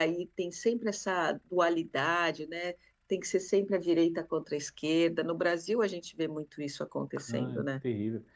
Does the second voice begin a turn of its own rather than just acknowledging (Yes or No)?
Yes